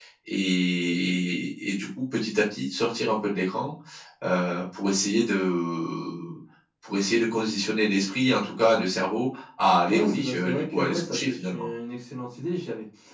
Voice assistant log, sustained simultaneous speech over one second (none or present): present